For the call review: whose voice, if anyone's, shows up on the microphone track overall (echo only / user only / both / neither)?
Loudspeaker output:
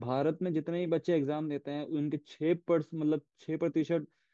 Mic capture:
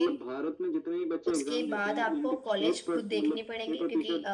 both